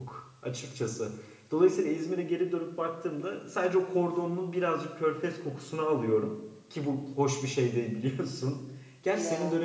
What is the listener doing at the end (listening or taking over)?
listening